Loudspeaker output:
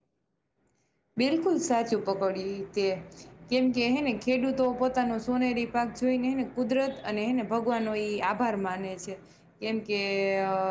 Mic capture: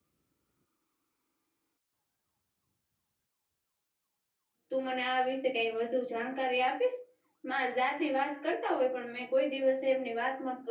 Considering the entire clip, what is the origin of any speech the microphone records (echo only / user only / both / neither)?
user only